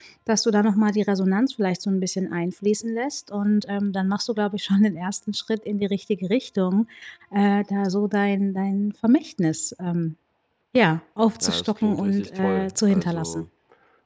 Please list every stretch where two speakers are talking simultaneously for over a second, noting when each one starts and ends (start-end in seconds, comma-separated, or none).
11.4-13.4